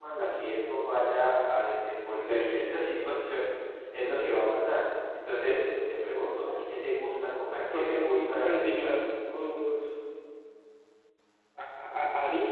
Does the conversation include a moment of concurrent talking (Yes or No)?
Yes